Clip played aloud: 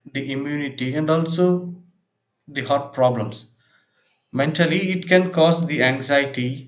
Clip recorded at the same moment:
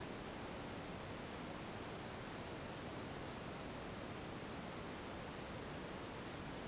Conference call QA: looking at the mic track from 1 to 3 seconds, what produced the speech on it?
neither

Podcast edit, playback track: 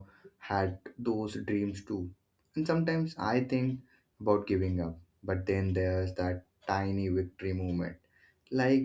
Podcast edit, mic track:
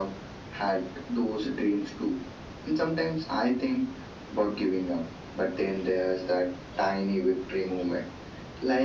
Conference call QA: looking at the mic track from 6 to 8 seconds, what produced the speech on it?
echo only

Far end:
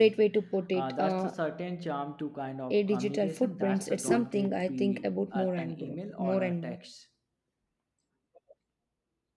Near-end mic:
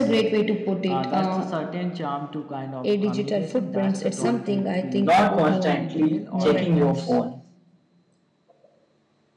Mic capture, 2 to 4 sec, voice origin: echo only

